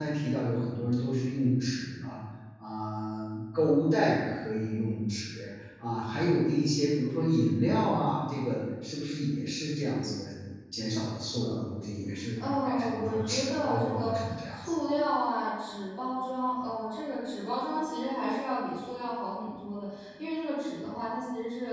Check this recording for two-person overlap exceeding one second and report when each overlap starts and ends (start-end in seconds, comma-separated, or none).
12.4-14.6